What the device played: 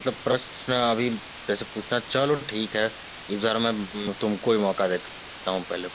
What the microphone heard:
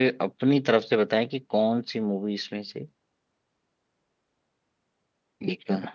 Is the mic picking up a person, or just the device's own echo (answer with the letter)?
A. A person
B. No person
A